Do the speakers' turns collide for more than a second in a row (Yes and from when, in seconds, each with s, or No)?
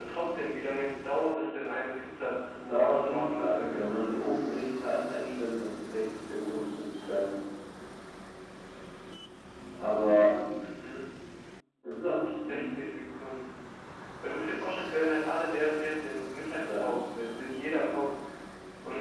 Yes, from 2.5 s